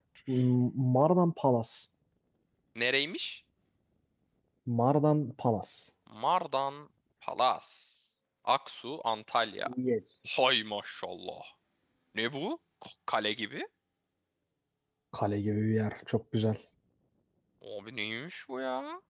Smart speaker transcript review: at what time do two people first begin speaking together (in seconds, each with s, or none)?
none